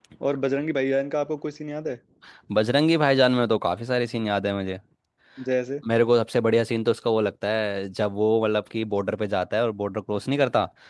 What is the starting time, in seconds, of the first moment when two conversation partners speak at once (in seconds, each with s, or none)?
none